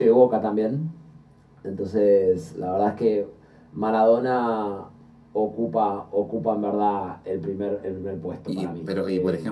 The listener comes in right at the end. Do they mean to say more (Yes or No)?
Yes